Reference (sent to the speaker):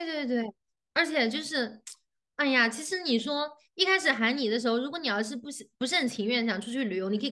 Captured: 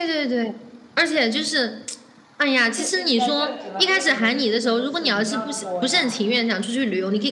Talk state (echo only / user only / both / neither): both